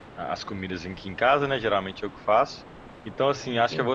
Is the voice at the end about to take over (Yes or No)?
No